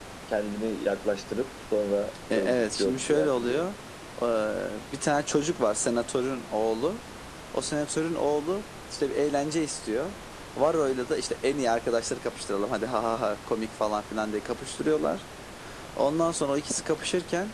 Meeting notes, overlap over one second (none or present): present